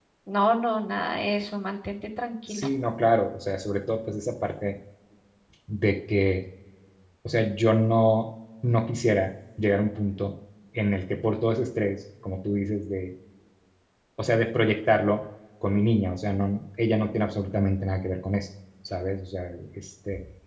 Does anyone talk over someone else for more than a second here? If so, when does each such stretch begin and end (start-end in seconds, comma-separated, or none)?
none